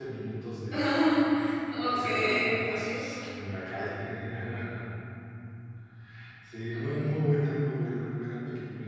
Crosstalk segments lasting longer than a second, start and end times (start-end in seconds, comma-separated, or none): 1.9-3.1